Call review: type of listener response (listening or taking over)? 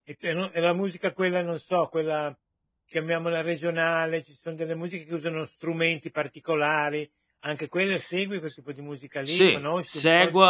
taking over